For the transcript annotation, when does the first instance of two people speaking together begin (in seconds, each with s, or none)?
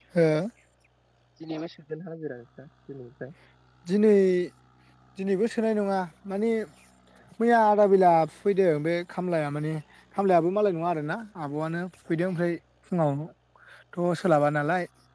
none